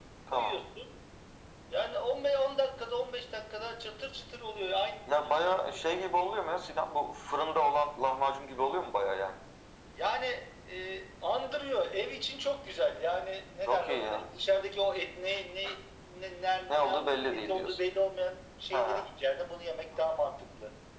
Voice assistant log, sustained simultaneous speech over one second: present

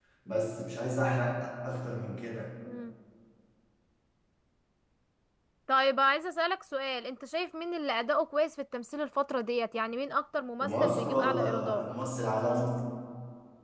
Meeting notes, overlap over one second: present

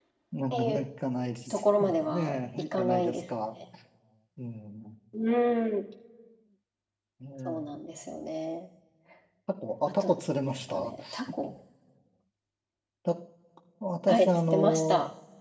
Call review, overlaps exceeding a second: present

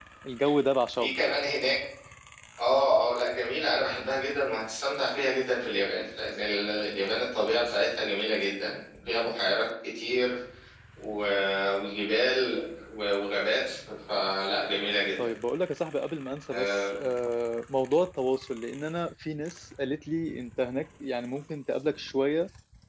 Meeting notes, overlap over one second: none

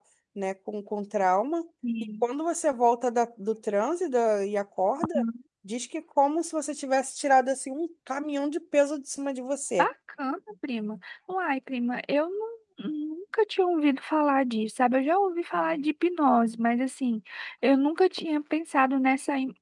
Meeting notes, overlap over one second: none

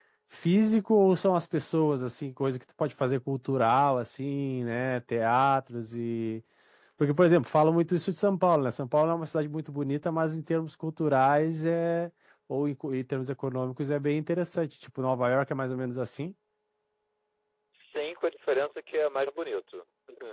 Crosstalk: none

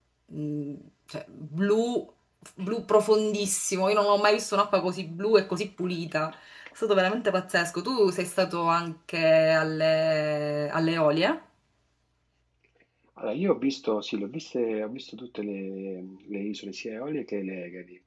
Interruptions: none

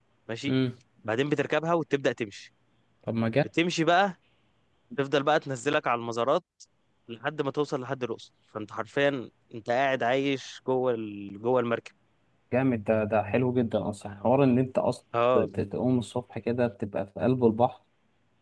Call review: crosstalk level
none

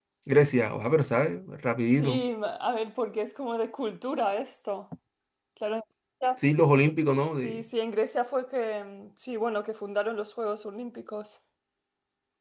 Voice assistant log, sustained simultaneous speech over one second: none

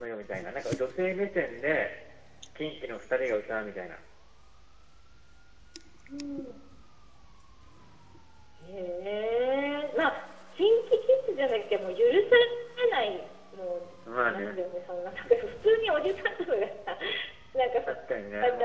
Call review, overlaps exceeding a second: none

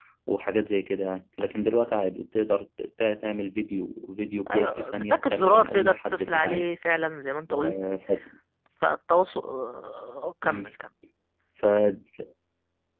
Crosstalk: present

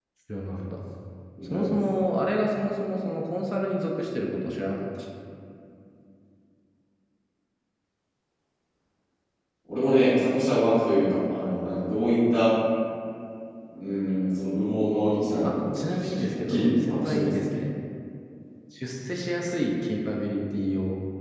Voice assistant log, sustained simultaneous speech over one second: present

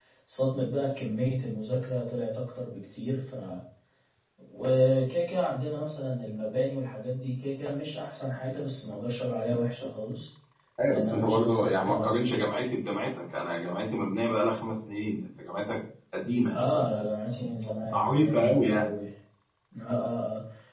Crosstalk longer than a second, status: present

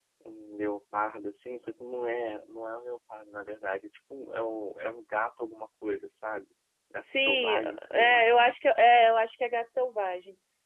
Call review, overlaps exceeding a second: present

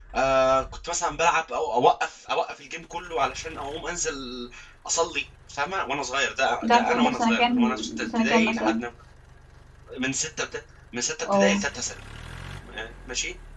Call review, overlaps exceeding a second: present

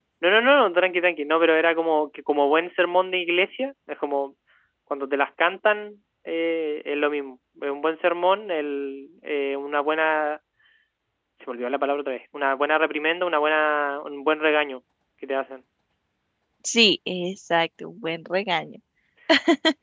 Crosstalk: none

